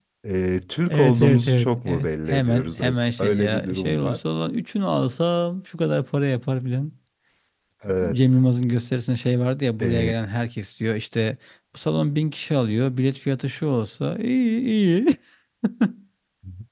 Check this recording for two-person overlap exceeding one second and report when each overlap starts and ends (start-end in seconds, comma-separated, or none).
0.9-4.2